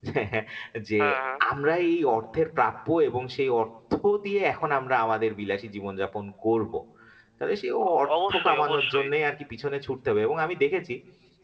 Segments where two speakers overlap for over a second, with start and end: 7.9-9.1

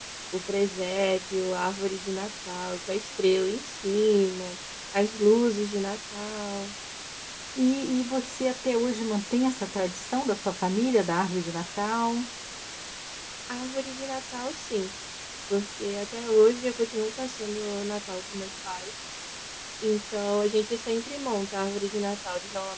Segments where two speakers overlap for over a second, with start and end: none

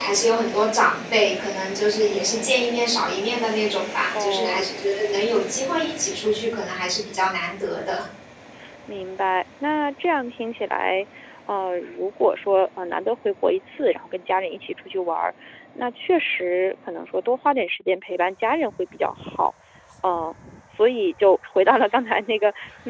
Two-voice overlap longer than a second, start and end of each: none

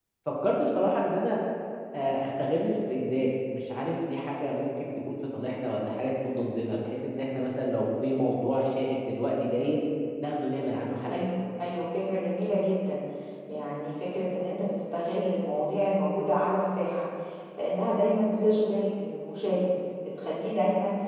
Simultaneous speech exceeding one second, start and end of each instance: none

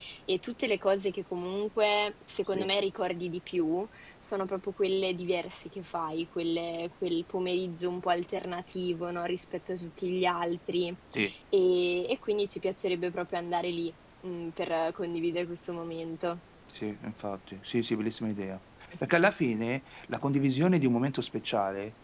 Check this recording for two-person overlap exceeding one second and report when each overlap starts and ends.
none

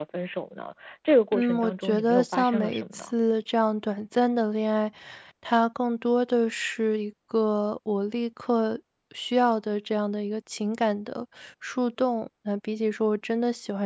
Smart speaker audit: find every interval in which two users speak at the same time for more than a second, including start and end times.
1.3-3.1

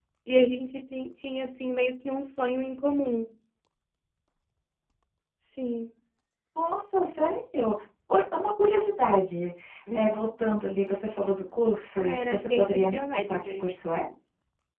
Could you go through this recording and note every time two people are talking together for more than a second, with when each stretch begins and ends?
12.0-13.6

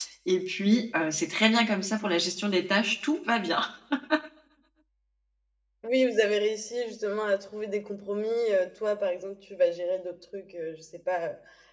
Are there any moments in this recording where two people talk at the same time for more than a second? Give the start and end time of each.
none

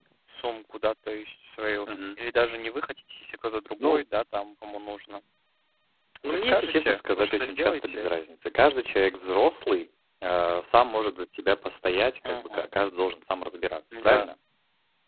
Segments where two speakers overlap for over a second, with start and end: 6.2-8.1

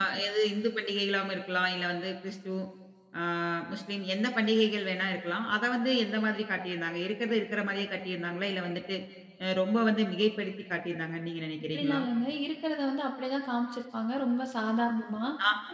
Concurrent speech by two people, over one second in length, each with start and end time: none

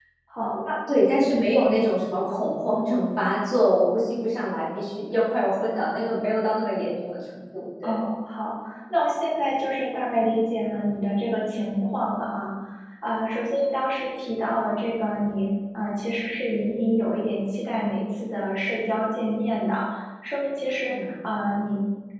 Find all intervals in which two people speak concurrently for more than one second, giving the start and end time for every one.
none

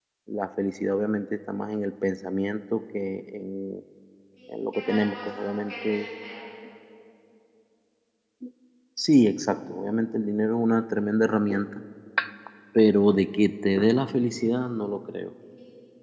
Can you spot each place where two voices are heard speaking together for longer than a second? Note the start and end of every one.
4.5-6.0

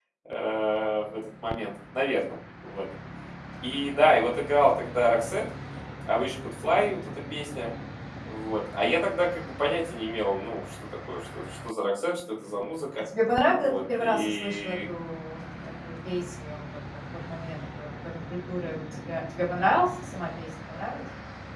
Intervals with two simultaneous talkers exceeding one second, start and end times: 13.5-14.8

